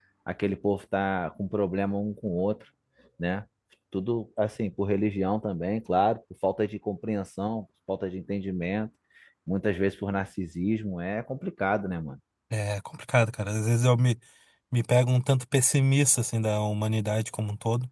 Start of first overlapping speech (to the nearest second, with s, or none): none